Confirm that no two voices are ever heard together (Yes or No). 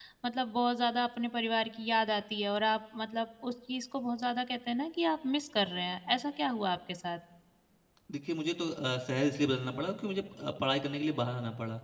Yes